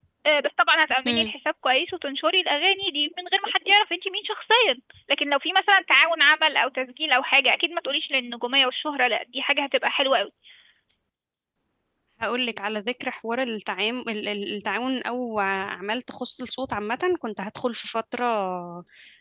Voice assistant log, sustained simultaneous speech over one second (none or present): none